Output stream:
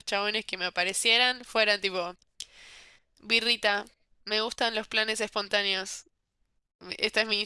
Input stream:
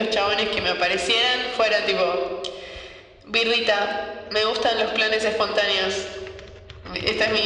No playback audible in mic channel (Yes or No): No